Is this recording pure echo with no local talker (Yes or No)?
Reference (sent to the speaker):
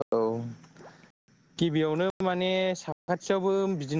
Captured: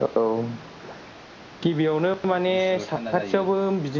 No